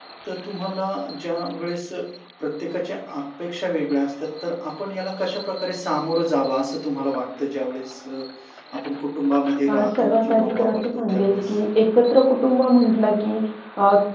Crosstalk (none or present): present